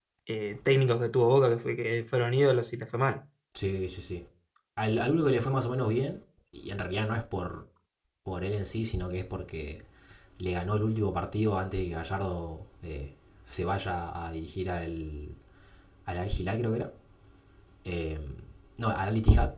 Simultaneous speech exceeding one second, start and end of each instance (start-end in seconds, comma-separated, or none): none